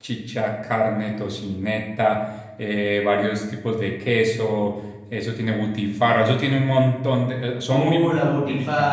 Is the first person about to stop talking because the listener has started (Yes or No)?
Yes